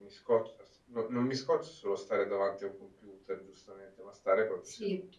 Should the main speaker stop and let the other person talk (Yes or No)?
Yes